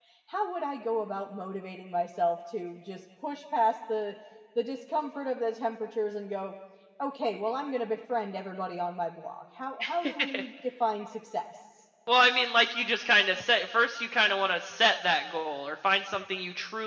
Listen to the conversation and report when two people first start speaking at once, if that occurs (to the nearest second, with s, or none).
none